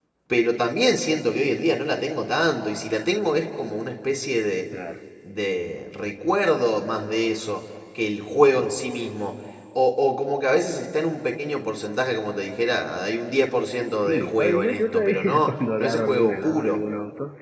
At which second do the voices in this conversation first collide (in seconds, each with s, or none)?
14.0 s